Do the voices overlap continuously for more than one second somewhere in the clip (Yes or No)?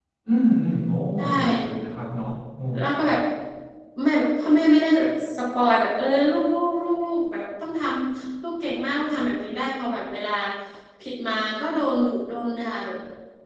No